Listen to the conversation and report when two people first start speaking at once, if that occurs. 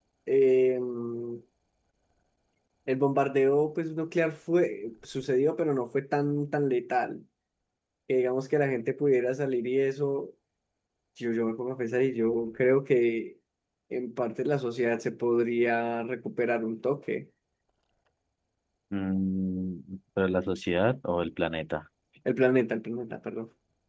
none

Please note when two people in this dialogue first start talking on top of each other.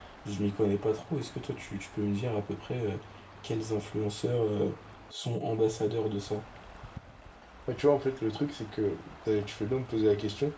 none

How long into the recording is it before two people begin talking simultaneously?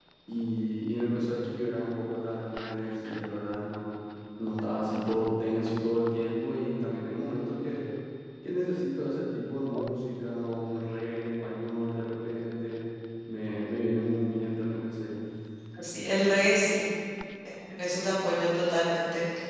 none

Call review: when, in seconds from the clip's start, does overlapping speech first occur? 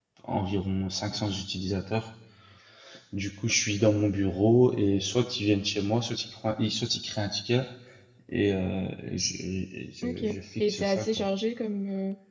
10.0 s

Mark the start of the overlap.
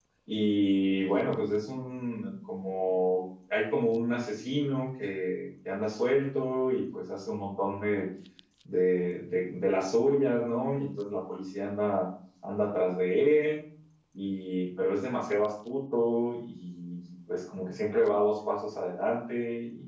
none

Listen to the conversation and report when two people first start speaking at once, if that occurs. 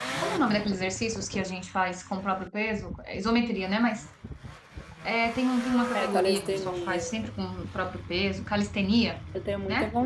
5.9 s

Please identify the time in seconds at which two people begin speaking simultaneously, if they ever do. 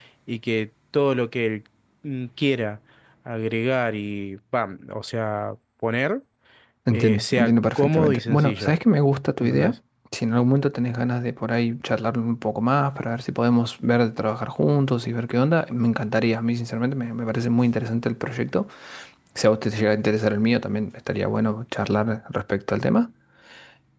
6.9 s

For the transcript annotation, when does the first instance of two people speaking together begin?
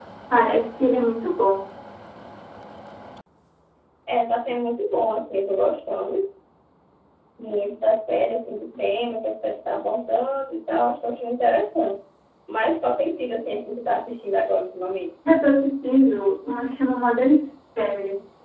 none

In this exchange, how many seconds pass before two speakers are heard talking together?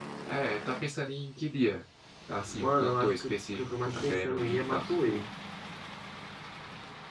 2.4 s

